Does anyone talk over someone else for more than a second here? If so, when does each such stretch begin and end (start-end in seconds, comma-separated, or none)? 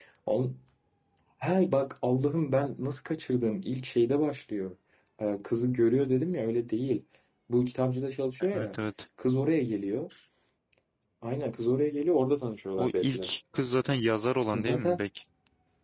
none